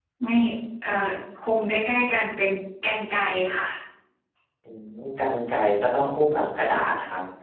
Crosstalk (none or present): none